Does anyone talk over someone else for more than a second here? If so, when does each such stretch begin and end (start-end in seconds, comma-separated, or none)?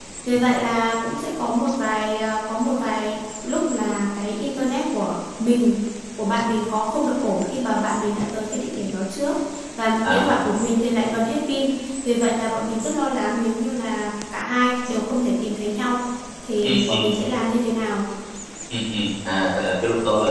none